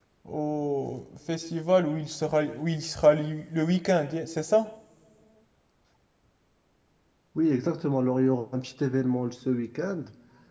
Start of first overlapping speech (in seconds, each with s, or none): none